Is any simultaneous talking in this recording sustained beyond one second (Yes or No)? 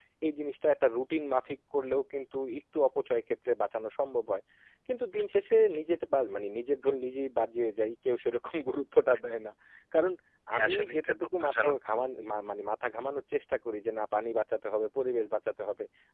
Yes